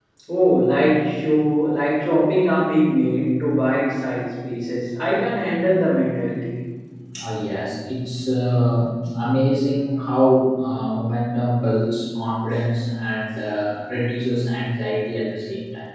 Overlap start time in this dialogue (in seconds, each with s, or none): none